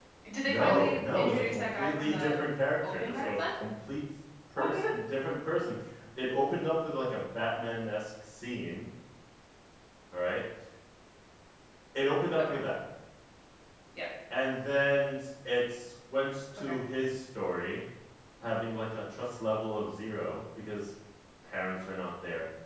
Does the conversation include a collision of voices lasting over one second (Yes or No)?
Yes